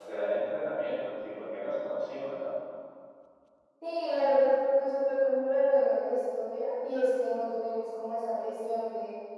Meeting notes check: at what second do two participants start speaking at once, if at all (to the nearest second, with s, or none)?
none